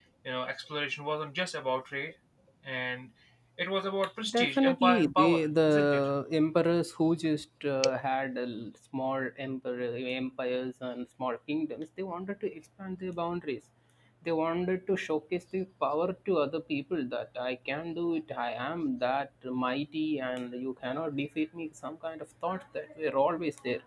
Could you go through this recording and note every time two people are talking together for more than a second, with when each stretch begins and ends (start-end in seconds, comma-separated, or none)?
4.3-6.1